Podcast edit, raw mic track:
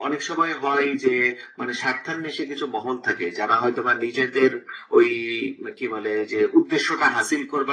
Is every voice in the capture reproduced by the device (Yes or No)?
Yes